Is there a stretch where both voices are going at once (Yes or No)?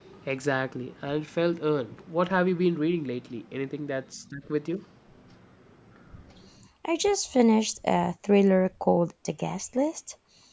No